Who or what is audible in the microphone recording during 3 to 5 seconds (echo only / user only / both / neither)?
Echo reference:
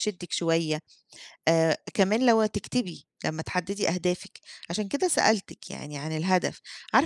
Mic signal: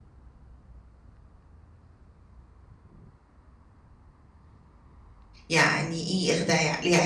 neither